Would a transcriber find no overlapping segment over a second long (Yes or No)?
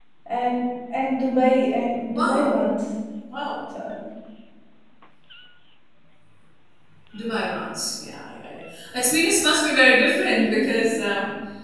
Yes